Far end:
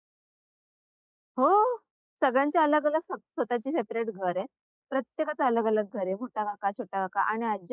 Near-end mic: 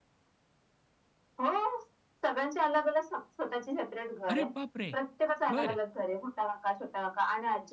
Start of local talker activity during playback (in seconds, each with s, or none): 4.3 s